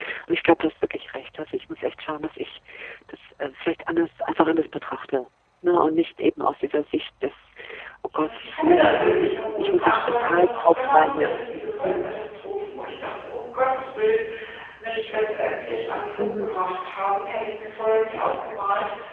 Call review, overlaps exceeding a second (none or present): present